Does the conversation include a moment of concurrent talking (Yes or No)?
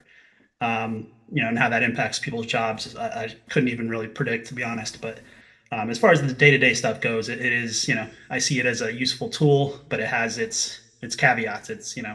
No